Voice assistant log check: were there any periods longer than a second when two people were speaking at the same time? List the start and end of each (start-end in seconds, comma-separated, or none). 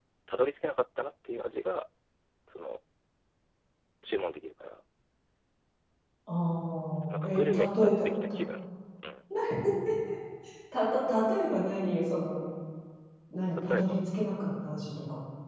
7.1-8.4